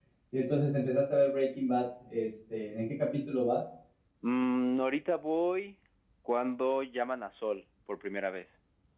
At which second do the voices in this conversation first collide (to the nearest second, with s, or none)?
none